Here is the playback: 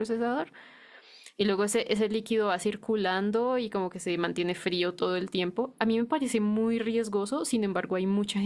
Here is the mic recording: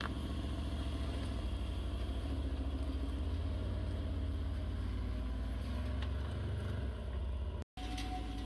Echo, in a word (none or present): none